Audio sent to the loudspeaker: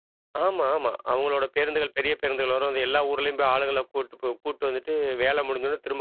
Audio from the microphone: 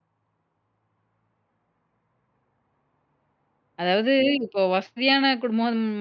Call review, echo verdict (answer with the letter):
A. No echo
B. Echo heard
A